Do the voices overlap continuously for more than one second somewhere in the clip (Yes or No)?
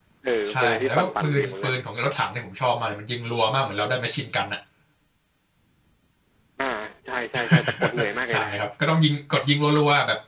Yes